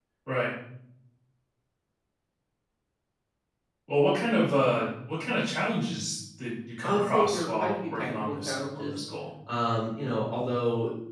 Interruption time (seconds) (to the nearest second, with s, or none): 7 s